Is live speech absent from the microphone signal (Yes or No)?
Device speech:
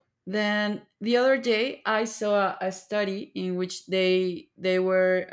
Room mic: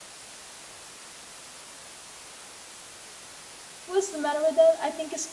No